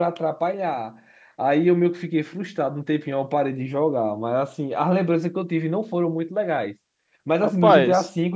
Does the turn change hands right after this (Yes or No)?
No